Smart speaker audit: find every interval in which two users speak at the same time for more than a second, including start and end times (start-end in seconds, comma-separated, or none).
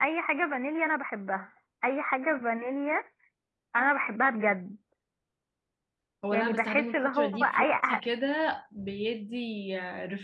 6.3-8.0